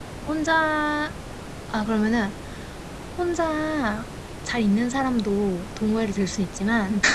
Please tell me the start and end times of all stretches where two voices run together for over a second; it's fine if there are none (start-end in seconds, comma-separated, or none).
none